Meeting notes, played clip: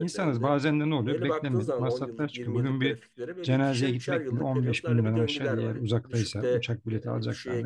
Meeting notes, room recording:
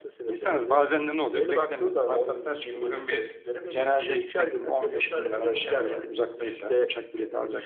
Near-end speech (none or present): none